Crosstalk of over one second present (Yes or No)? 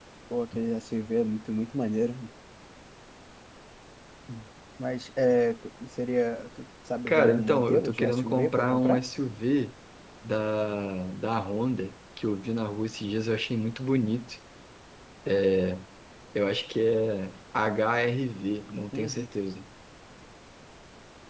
Yes